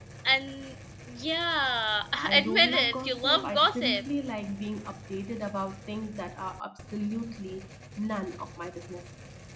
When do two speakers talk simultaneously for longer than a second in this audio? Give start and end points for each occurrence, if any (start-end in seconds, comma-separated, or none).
2.1-4.0